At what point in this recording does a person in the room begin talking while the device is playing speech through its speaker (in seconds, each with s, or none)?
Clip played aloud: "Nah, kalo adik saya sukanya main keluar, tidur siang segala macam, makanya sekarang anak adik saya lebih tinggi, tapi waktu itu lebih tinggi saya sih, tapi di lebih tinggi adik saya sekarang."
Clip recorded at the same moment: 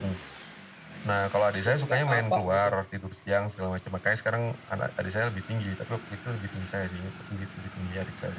1.7 s